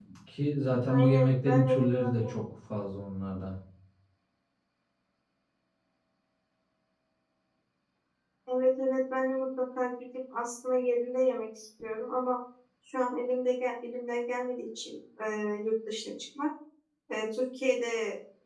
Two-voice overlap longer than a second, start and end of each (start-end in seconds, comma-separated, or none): 0.9-2.3